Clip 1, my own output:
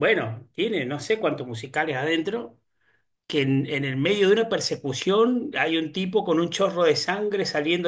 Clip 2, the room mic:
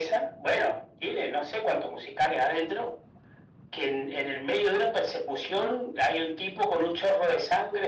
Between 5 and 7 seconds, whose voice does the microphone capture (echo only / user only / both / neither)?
echo only